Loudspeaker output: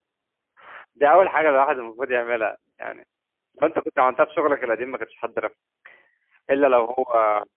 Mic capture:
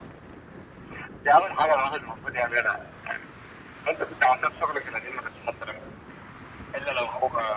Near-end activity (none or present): none